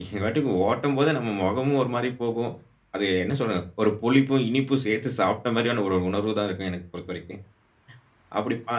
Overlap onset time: none

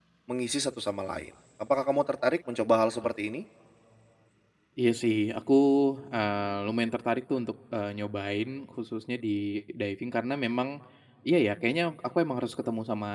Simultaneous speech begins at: none

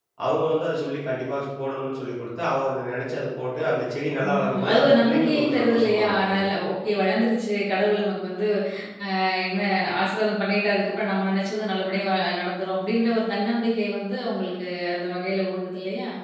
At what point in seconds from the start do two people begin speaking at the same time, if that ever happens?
4.2 s

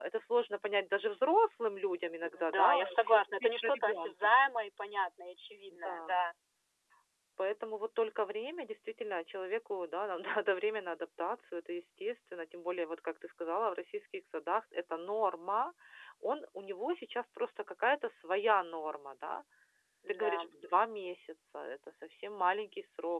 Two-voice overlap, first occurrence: 2.2 s

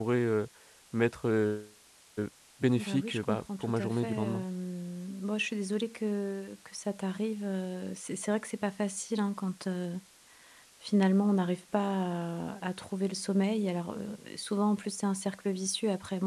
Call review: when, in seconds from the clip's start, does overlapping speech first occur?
2.8 s

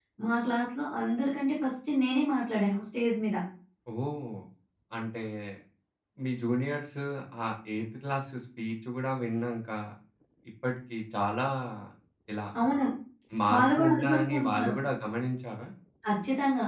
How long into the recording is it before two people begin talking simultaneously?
13.5 s

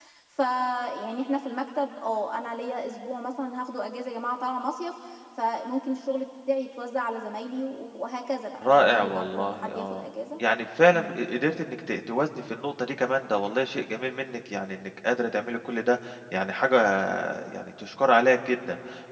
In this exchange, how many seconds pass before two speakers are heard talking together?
8.6 s

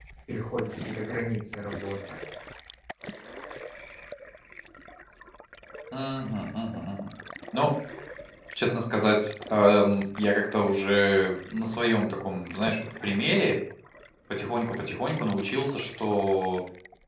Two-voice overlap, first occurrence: none

